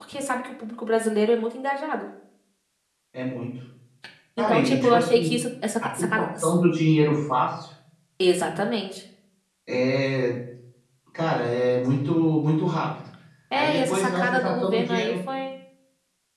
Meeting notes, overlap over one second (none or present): present